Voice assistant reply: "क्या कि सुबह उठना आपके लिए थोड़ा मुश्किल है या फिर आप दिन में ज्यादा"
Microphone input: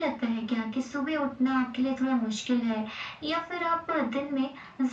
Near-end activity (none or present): none